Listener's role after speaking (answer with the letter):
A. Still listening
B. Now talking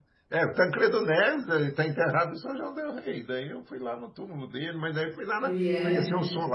A